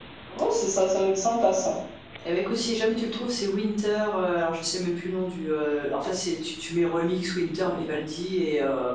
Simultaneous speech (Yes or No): No